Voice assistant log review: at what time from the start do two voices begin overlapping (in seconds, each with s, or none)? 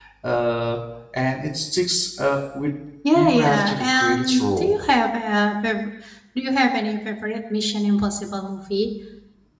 3.1 s